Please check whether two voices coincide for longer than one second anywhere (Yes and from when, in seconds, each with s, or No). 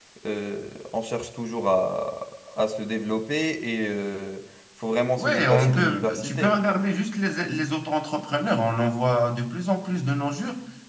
Yes, from 5.2 s